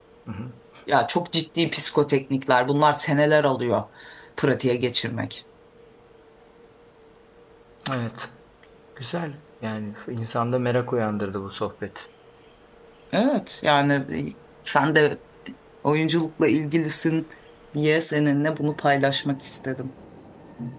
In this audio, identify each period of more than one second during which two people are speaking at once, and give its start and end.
none

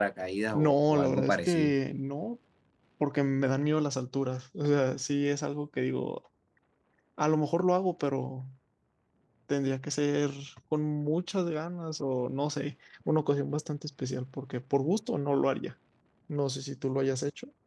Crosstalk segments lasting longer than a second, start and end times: 0.5-1.7

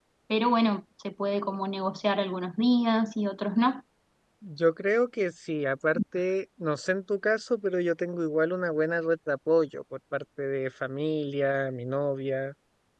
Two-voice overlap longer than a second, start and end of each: none

